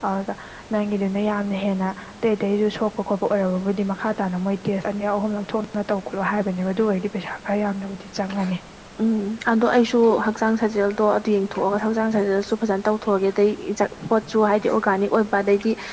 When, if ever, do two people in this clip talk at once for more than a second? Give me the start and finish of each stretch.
none

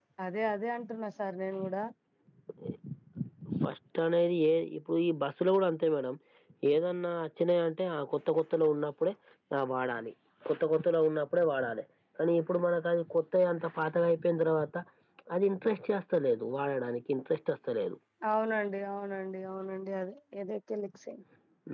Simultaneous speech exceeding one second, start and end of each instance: none

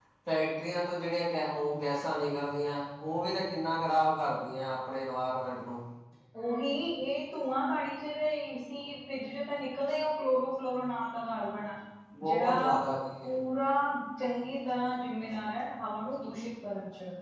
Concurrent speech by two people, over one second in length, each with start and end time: none

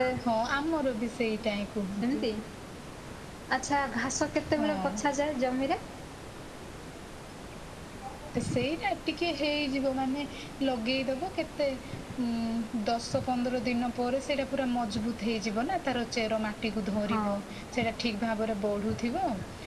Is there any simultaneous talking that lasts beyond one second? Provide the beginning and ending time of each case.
none

